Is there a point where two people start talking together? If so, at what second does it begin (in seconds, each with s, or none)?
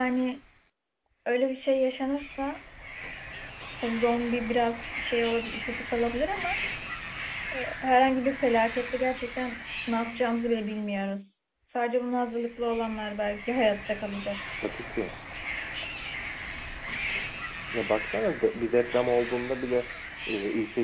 none